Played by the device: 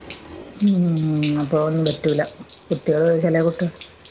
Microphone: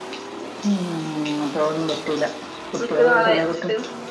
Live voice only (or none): നിക്ക്ണ ആളെ വചിട്ട്.